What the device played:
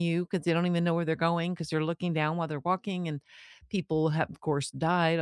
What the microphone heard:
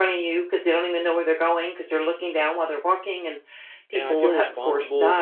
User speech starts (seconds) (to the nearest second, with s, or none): 4 s